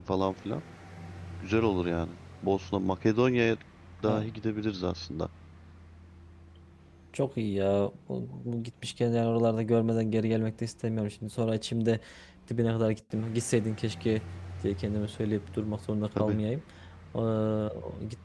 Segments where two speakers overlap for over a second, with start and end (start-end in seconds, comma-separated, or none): none